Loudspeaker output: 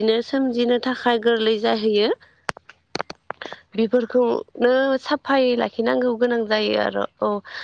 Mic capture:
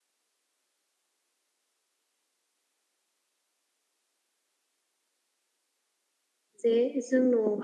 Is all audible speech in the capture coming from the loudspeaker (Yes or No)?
No